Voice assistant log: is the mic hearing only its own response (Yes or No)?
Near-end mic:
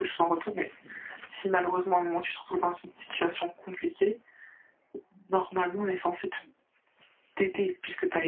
Yes